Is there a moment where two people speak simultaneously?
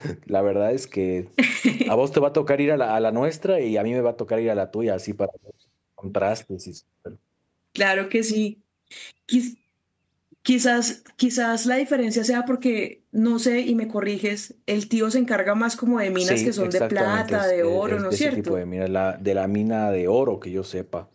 Yes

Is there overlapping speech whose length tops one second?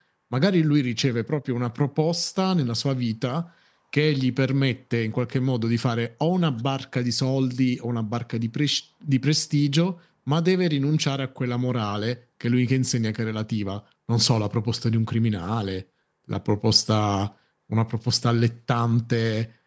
No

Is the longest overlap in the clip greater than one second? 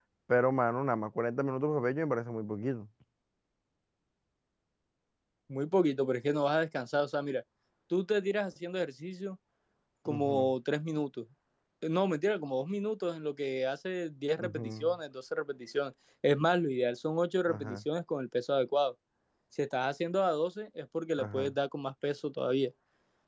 No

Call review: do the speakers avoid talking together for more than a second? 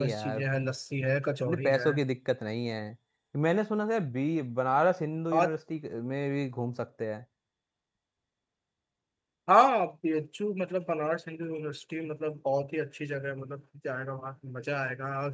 Yes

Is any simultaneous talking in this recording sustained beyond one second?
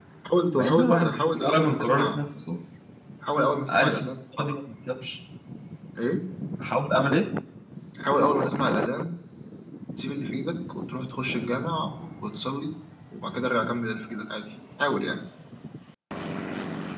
Yes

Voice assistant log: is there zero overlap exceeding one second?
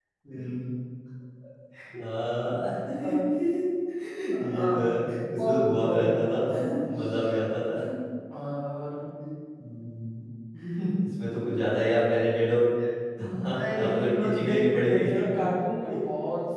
No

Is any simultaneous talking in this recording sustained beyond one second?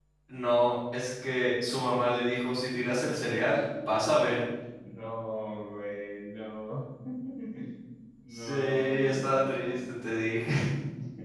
Yes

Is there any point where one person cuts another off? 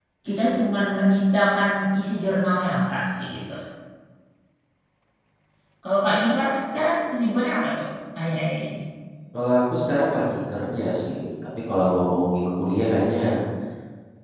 No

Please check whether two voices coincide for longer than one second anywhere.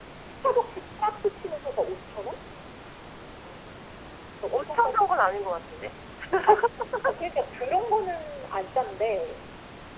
No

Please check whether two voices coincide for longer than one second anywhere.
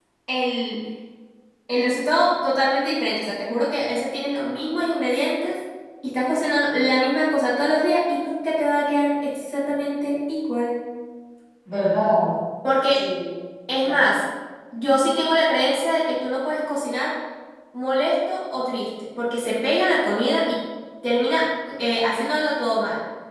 No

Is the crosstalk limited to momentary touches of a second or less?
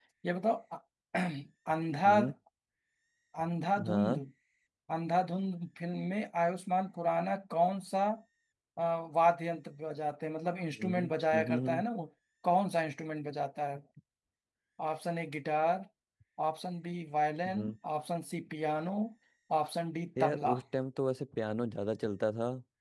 Yes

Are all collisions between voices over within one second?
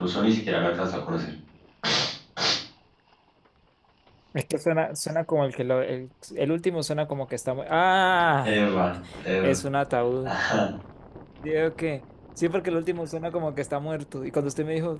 Yes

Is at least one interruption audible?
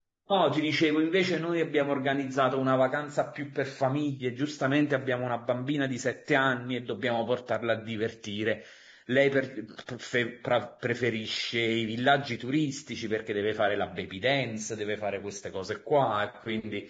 No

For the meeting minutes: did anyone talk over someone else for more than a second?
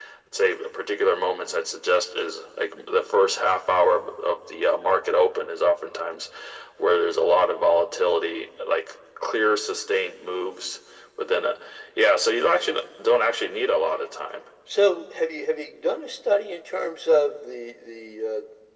No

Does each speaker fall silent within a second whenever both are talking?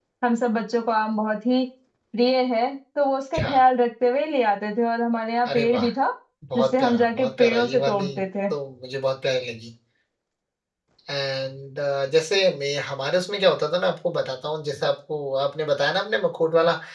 No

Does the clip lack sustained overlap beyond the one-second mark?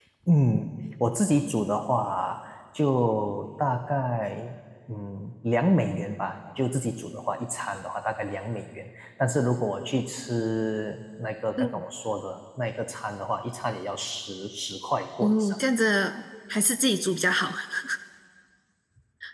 Yes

